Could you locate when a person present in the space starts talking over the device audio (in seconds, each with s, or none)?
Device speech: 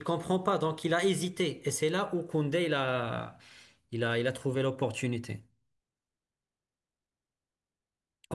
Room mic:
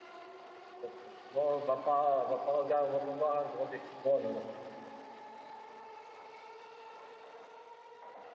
0.8 s